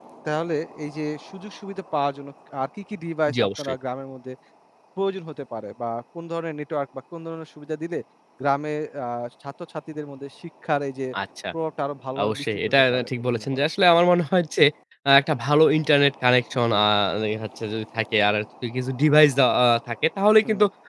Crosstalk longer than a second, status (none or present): present